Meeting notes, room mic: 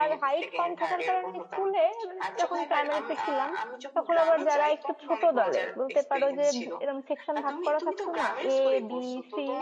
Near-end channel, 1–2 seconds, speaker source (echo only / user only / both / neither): both